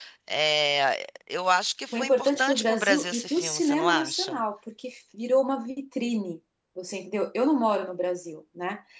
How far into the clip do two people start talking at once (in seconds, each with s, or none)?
1.9 s